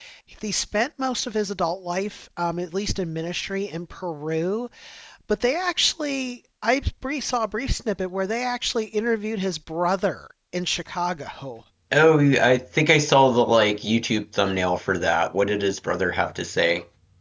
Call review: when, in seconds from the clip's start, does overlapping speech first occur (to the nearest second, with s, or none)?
none